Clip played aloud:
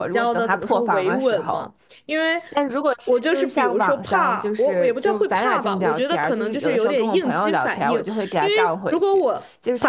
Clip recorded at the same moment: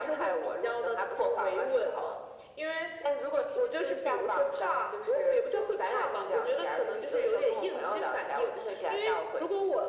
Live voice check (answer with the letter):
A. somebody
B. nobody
B